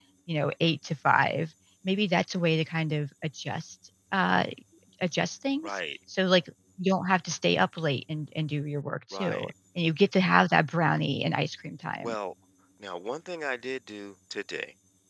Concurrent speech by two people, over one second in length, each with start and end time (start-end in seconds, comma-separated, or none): none